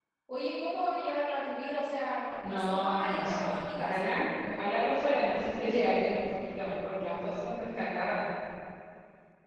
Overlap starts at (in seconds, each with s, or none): 2.4 s